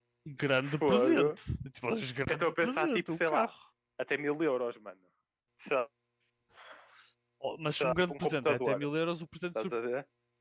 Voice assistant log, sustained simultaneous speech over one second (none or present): present